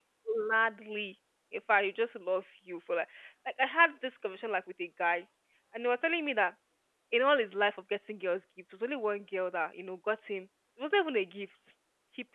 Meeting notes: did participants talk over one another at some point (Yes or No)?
No